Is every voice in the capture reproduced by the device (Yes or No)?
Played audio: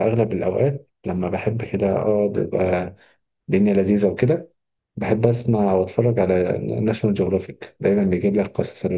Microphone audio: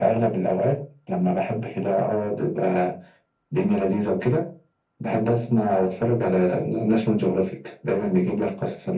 Yes